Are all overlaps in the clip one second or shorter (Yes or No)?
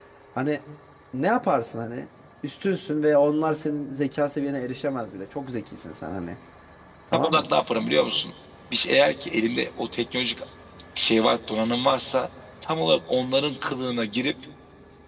Yes